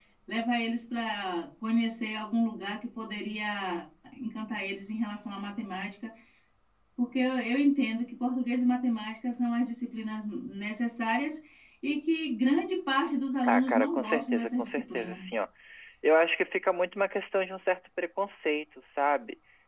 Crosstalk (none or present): present